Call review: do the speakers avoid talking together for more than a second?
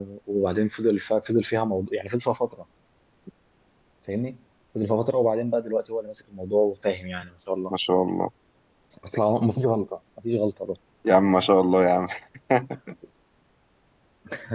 Yes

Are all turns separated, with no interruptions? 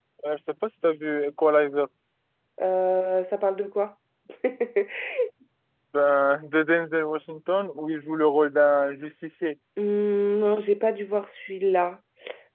Yes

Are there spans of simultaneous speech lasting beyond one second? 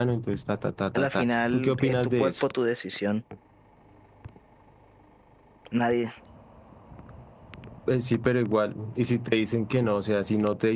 Yes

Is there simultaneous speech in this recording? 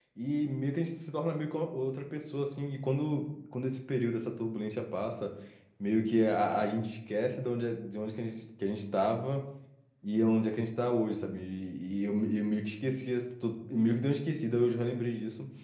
No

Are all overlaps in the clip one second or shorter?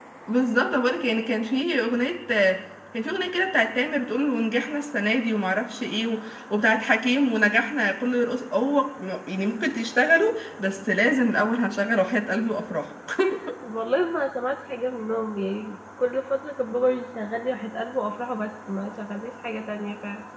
Yes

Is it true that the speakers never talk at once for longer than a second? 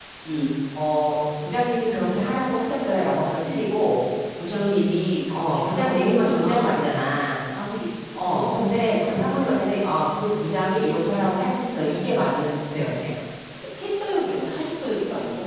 No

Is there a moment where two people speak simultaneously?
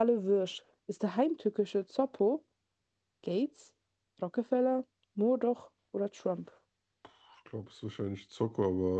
No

